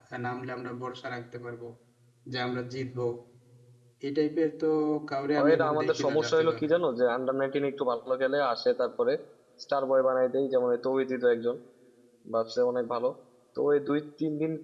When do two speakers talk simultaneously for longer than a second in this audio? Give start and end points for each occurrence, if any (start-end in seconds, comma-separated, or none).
5.4-6.7